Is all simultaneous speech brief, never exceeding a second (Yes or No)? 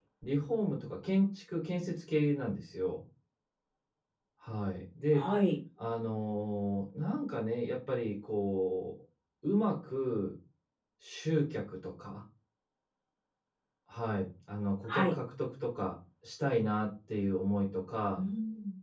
Yes